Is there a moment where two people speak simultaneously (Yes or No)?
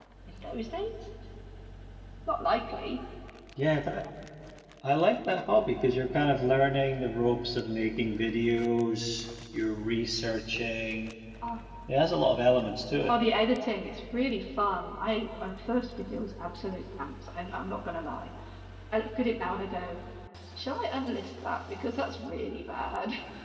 No